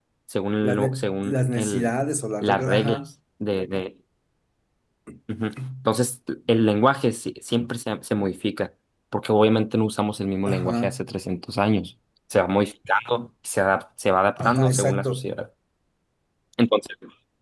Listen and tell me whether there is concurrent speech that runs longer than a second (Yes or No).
Yes